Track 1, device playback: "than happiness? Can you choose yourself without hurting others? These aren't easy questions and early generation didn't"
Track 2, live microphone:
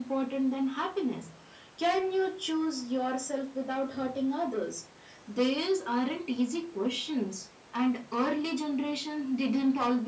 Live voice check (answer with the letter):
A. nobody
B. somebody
A